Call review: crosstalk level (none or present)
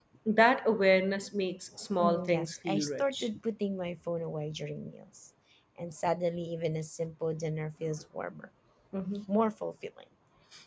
present